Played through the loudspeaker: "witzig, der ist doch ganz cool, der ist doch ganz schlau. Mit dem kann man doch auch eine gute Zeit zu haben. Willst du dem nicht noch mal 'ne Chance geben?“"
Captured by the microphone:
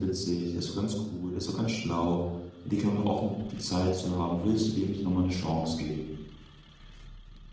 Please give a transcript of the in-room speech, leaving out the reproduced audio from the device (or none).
none